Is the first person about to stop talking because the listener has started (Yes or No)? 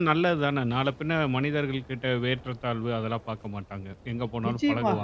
Yes